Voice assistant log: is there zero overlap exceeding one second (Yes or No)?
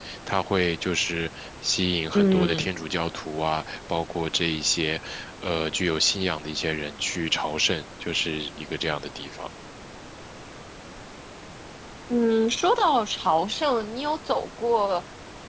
Yes